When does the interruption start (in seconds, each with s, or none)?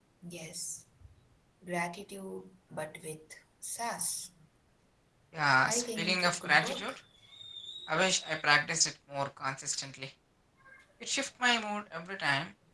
5.7 s